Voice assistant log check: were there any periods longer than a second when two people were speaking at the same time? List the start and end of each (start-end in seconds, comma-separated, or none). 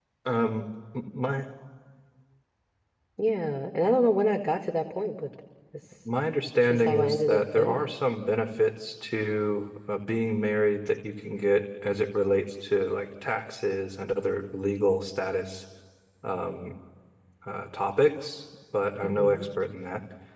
6.6-7.9